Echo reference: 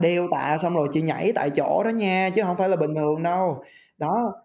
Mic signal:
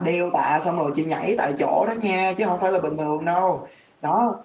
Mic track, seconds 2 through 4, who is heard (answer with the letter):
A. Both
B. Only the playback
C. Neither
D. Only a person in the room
B